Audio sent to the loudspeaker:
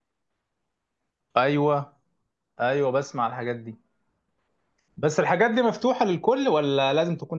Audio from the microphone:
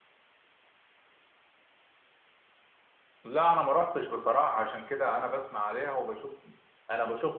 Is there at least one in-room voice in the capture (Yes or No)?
Yes